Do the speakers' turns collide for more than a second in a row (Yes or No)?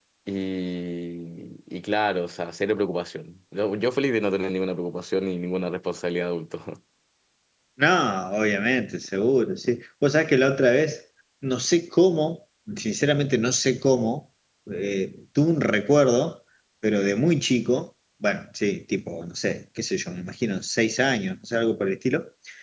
No